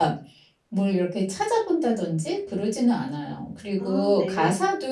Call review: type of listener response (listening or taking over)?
listening